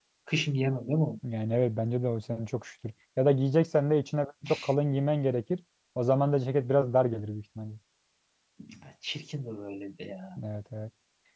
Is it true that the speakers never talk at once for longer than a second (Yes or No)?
Yes